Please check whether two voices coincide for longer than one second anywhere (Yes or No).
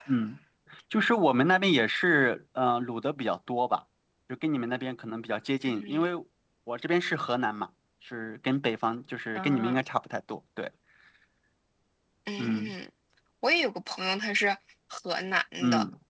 No